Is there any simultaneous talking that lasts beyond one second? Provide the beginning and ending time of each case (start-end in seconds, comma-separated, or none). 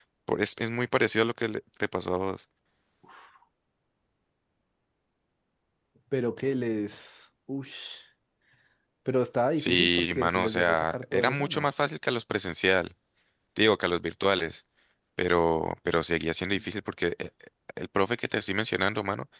9.6-11.7